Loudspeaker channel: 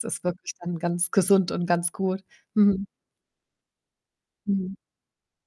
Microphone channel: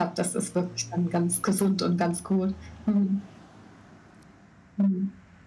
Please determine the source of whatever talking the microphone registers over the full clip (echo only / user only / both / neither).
echo only